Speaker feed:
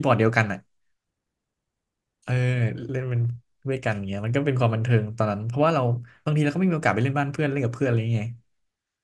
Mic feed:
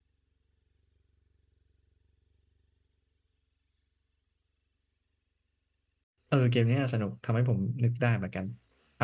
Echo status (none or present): none